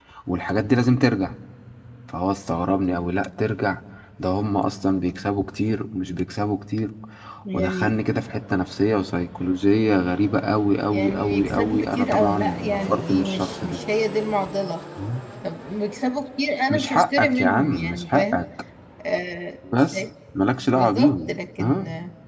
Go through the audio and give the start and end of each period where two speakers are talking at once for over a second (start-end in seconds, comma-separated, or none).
10.9-13.8, 16.7-18.4